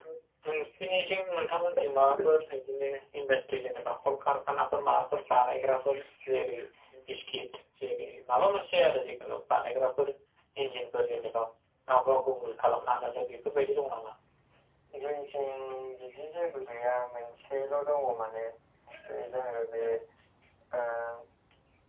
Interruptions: none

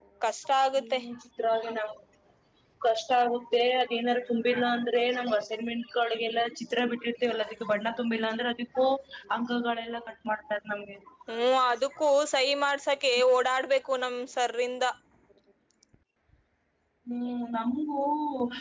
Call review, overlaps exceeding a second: none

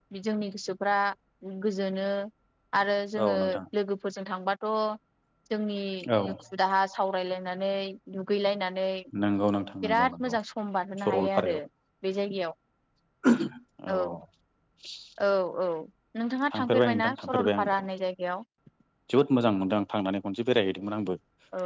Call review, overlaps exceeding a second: present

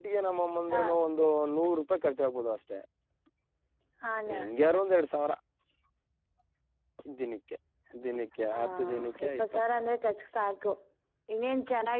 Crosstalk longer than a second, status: present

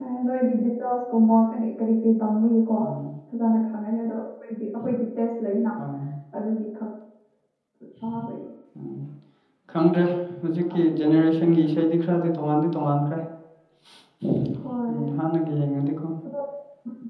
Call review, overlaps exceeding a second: none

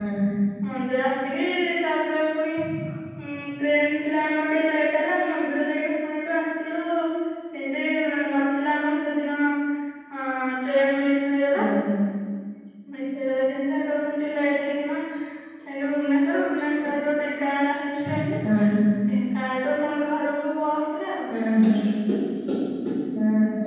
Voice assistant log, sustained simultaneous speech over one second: none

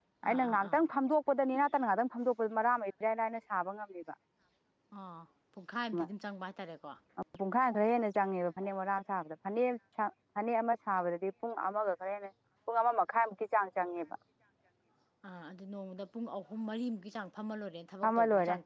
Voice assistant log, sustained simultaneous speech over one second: none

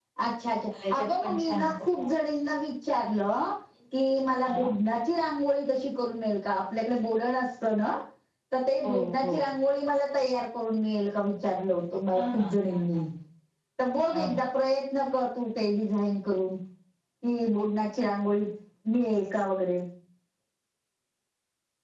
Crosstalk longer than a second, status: present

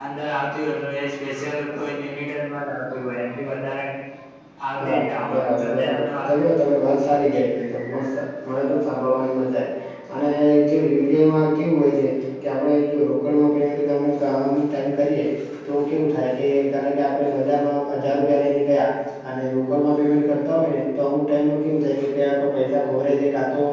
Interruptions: present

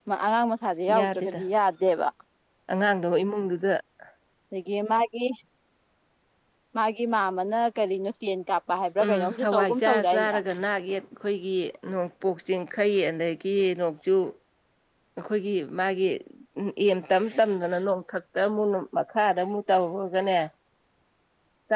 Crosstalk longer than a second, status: present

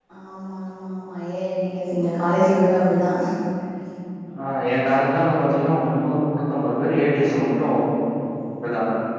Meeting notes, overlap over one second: none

